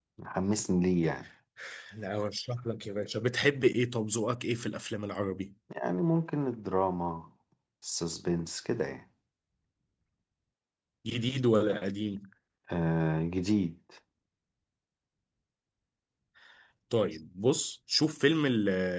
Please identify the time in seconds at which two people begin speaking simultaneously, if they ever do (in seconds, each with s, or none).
none